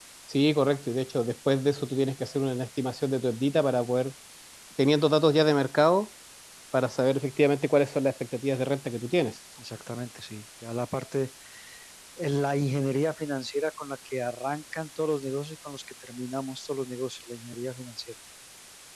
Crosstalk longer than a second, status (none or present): none